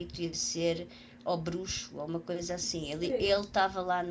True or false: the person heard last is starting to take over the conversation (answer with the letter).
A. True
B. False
B